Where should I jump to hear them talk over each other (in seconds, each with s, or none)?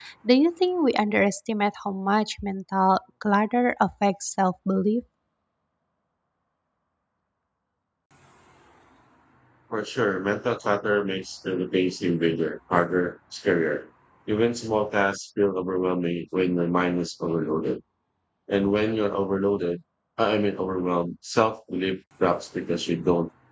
none